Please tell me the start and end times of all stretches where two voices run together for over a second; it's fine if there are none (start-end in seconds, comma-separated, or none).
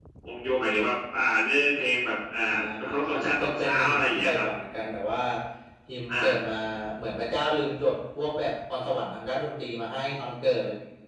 2.9-4.4